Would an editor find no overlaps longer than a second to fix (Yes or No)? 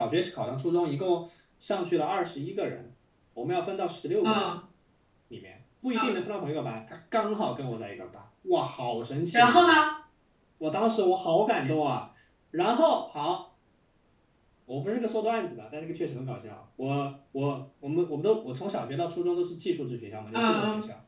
Yes